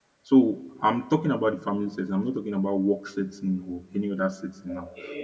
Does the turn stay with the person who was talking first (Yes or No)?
Yes